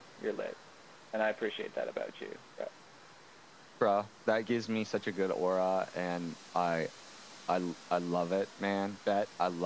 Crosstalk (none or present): none